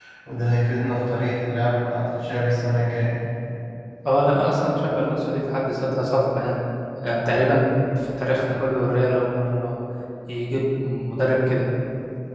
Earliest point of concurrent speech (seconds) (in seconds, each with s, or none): none